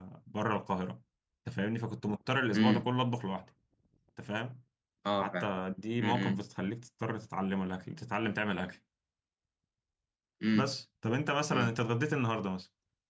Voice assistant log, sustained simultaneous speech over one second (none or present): none